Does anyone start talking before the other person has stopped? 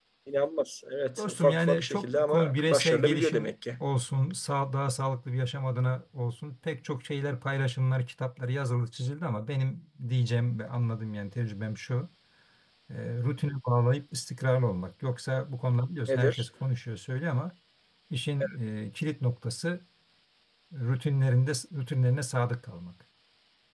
Yes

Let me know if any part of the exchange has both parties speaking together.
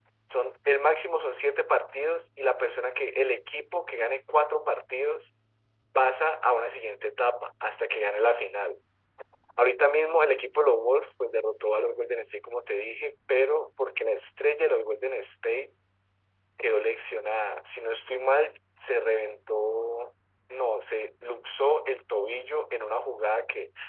No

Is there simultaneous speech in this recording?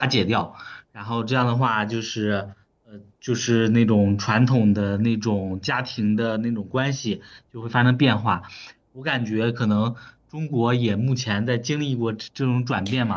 No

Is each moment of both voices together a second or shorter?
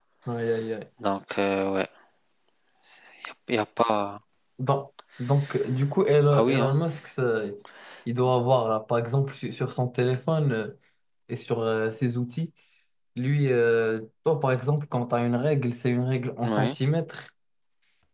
Yes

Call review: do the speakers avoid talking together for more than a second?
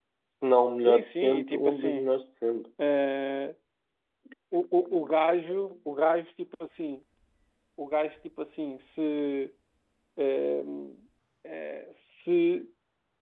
No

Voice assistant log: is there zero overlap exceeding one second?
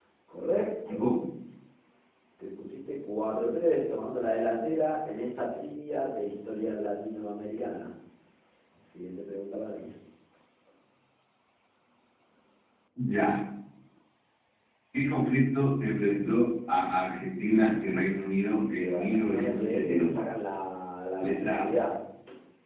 No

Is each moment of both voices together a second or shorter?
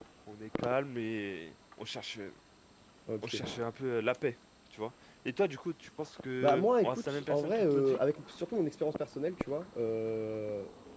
No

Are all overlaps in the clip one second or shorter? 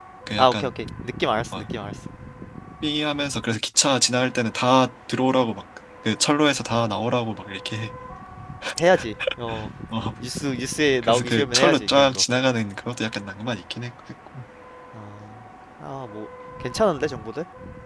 No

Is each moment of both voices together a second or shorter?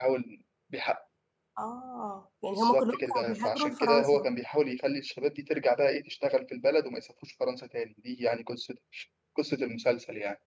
No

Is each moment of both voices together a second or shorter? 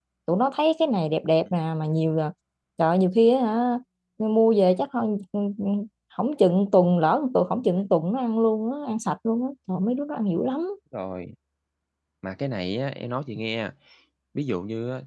Yes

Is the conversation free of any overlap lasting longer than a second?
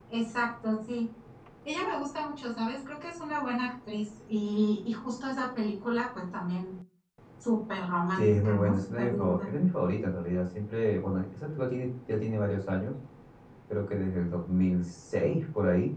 No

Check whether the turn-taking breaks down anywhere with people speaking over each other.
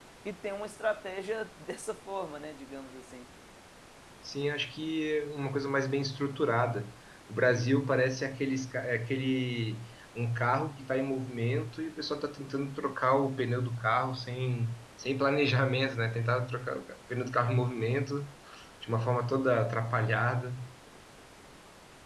No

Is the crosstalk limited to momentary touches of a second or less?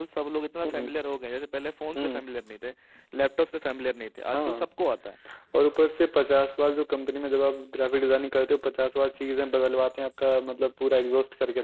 Yes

